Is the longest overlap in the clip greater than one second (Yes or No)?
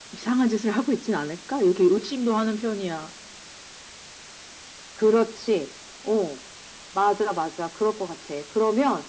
No